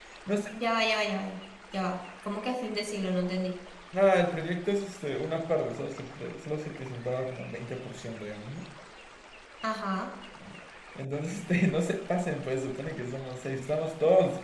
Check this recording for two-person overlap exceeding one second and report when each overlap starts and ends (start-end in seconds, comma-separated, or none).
none